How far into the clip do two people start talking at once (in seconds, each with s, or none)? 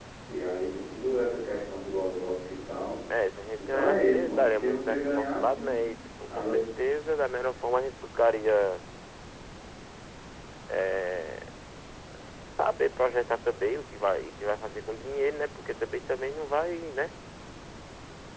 3.6 s